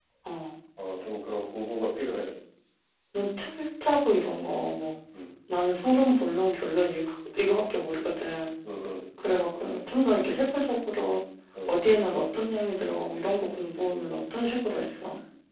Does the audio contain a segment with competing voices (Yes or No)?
No